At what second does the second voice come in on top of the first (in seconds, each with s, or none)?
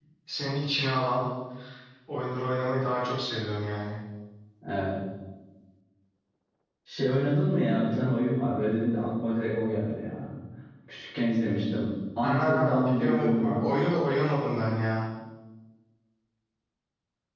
12.2 s